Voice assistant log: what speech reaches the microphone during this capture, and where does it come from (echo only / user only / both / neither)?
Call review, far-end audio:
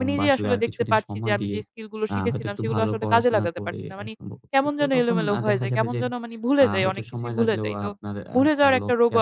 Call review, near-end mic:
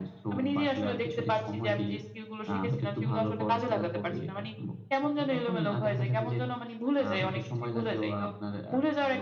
echo only